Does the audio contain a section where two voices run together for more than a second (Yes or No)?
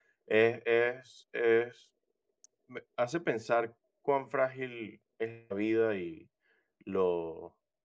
No